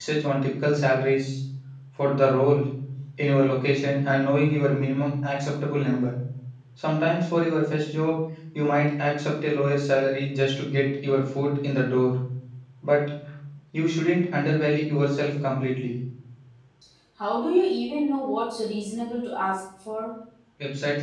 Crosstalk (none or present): none